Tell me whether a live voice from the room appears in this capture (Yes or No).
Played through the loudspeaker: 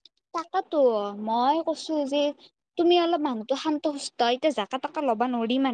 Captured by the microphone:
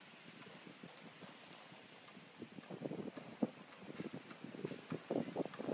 No